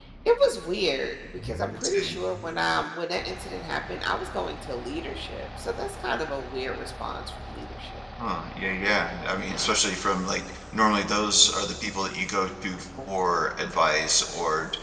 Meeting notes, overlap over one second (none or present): none